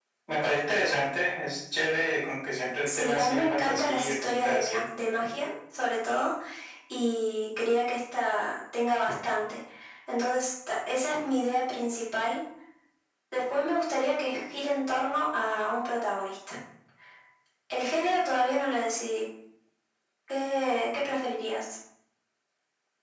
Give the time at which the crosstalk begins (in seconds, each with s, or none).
2.9 s